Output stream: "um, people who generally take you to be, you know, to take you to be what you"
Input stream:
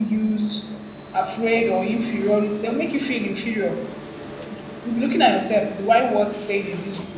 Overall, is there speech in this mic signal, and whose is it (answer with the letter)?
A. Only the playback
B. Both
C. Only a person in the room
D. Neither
C